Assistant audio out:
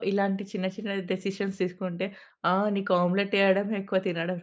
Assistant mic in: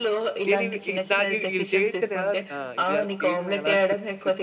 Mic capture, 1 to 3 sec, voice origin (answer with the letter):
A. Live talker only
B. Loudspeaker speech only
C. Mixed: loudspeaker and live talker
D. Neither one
C